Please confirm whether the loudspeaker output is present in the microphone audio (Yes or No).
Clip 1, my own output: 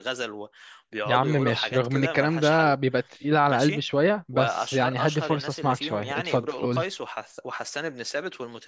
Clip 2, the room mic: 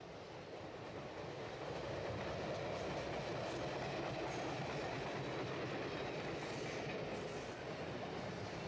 No